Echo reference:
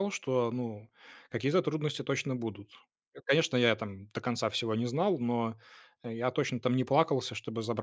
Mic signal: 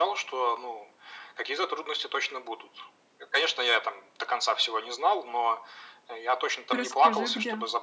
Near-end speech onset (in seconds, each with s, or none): 6.7 s